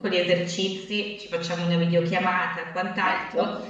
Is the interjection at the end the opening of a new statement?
No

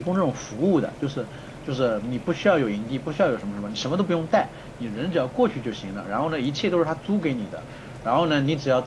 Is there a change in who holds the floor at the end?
No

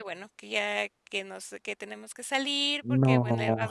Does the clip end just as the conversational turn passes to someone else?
No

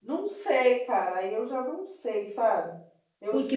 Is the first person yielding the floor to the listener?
Yes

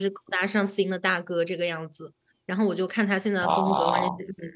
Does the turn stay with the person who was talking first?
Yes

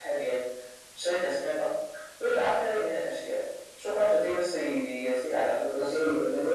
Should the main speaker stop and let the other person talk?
Yes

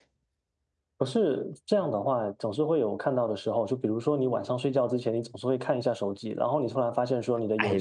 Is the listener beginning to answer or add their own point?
Yes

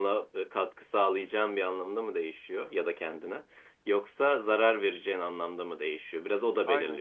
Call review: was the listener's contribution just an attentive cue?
Yes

